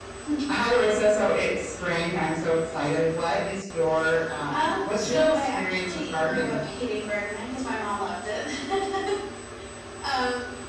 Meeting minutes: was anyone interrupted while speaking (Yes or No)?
Yes